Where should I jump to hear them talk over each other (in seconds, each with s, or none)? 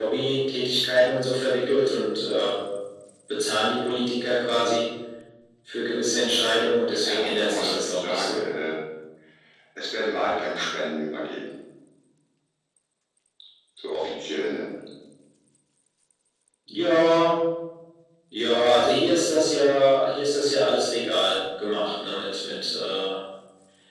6.9 s